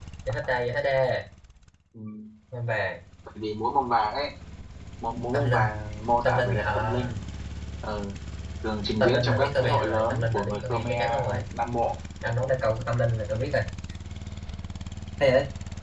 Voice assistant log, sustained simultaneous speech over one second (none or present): present